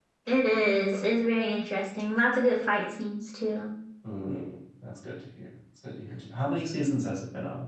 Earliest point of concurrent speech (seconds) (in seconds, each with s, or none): none